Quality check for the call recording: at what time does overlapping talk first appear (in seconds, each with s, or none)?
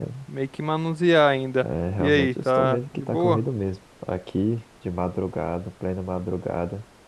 1.6 s